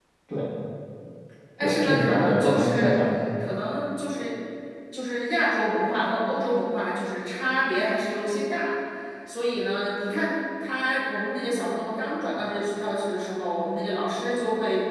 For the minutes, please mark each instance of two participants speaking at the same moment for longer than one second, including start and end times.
1.6-3.0

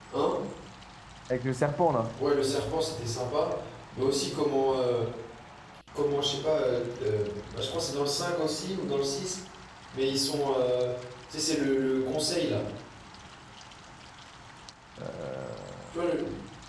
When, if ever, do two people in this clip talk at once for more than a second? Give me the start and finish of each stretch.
none

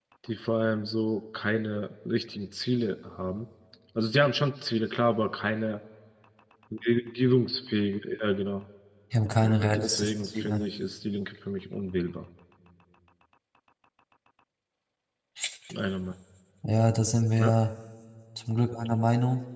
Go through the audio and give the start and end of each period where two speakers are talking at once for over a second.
9.4-10.6

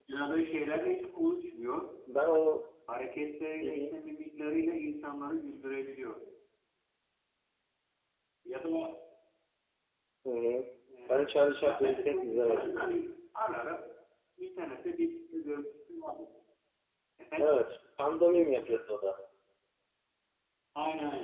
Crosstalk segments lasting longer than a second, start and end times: 11.1-13.0

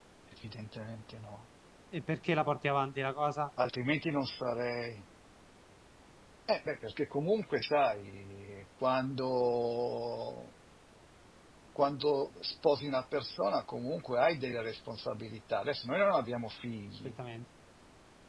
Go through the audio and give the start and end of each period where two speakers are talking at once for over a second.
none

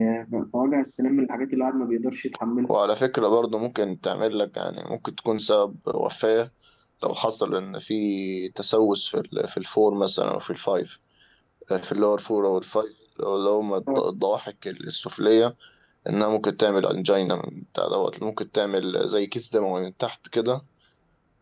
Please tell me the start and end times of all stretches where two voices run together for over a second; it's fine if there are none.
none

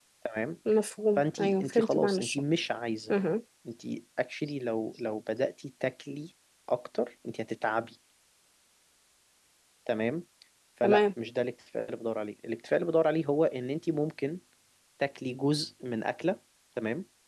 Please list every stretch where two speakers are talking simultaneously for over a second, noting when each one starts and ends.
1.2-2.4

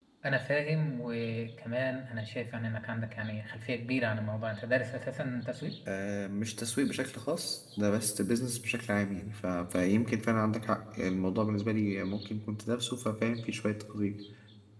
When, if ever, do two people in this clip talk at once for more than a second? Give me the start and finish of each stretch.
none

